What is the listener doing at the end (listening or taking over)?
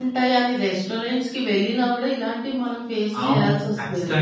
taking over